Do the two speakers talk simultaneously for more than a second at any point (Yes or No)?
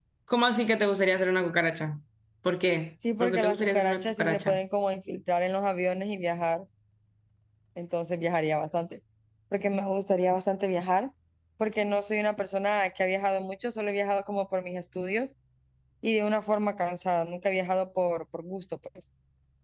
Yes